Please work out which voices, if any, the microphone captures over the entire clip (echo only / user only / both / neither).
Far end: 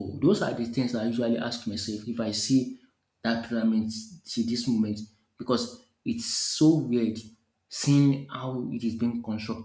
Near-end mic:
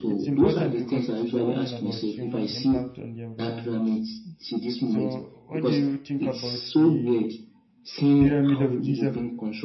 both